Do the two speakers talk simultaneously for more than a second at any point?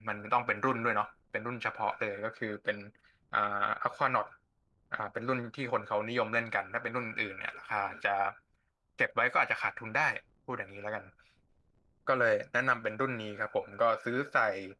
No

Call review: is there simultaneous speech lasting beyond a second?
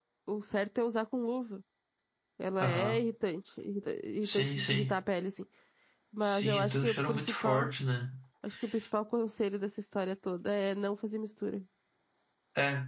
Yes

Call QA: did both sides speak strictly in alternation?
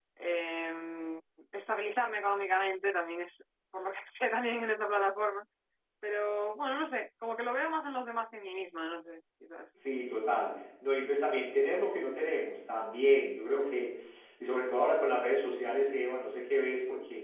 Yes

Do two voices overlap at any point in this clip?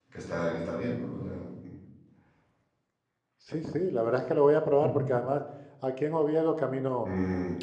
No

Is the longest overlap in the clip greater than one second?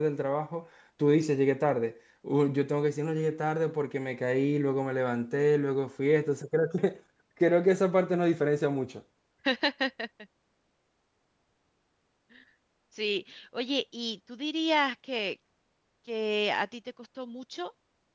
No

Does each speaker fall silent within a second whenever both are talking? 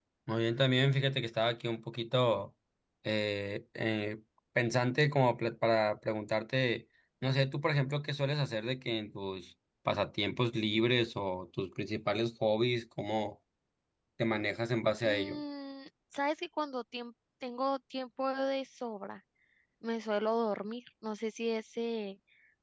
Yes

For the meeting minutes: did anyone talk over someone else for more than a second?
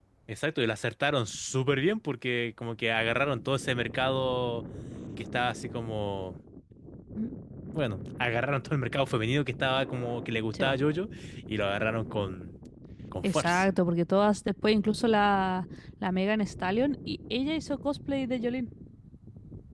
No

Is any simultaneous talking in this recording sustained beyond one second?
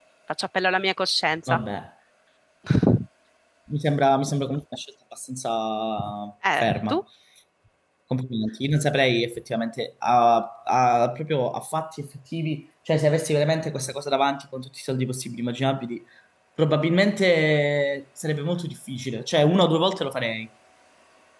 No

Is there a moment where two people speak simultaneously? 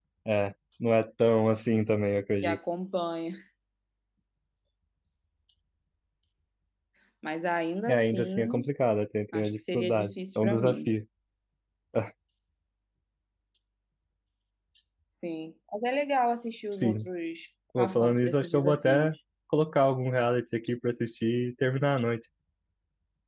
Yes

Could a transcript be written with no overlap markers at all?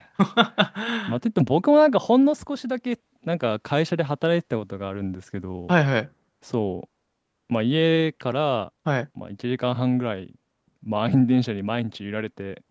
Yes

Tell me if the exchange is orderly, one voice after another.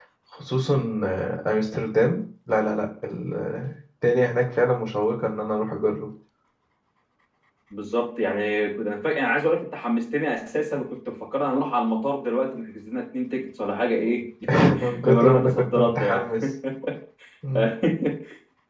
No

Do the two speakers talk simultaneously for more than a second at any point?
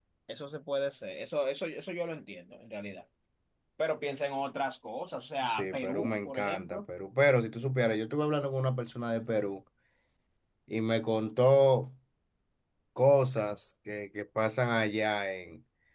Yes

